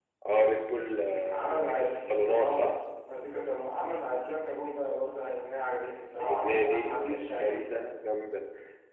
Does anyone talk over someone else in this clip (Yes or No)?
Yes